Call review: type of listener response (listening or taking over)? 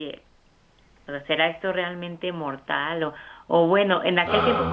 listening